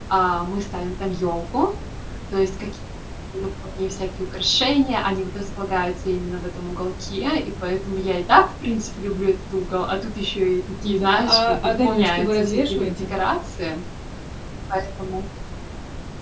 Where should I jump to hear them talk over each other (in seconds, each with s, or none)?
10.8 s